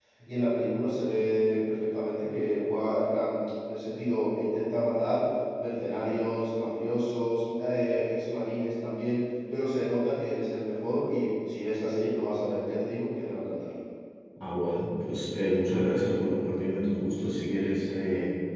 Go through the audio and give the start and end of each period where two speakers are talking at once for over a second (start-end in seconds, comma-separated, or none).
none